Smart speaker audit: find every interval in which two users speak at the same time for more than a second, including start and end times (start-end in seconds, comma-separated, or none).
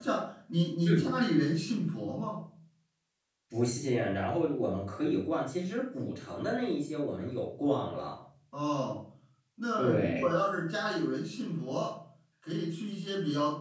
none